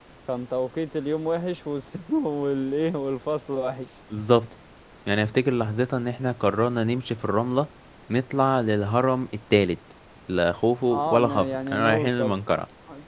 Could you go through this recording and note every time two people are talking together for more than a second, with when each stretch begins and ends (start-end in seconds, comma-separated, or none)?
10.9-12.3